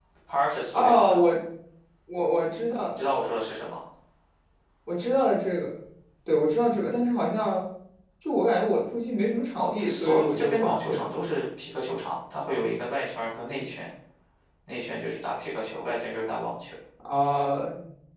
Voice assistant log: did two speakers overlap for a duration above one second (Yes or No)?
Yes